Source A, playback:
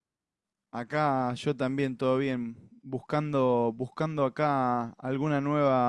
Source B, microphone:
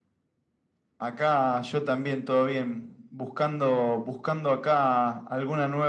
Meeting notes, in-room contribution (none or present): none